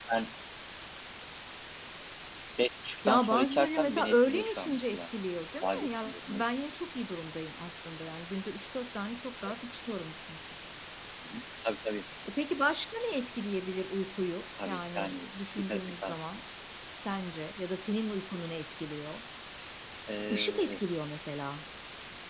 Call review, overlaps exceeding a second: present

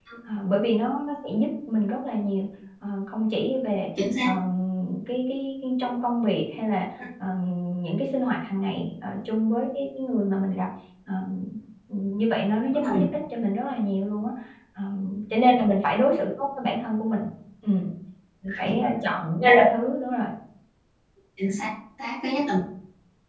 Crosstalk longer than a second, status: none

